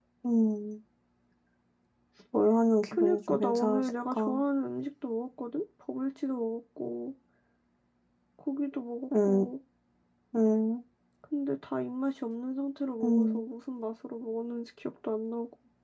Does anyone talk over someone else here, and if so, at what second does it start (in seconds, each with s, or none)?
2.9 s